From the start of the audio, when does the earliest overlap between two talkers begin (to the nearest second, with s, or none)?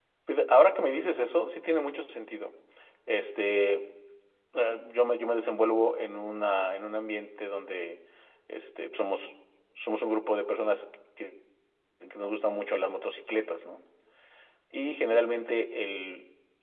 none